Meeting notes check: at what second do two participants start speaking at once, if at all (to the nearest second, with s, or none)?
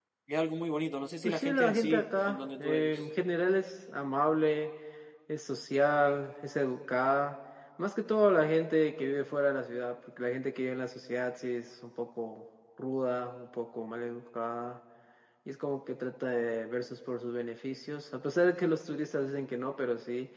1 s